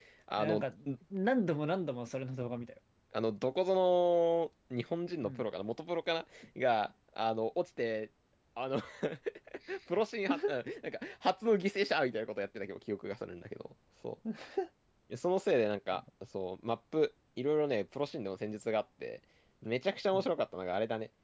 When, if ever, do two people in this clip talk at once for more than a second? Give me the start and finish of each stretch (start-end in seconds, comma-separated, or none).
none